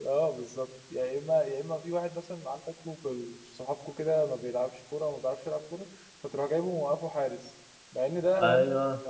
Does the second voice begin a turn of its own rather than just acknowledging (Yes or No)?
No